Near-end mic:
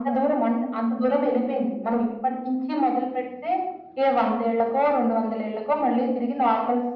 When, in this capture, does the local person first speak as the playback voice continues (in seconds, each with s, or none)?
none